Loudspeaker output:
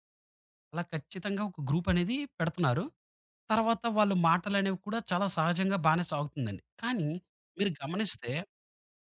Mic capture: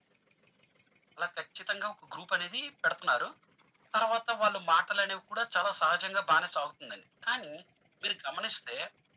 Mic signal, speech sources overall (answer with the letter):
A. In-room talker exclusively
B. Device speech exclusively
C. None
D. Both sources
B